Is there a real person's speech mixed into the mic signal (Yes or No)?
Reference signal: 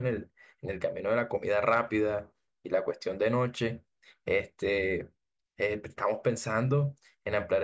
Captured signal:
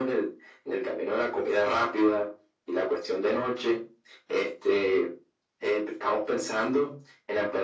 No